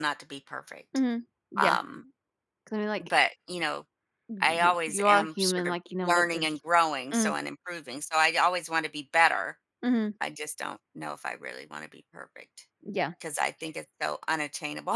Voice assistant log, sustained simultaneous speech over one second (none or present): present